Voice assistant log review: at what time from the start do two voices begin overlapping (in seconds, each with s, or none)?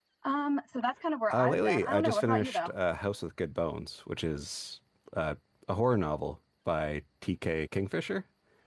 1.3 s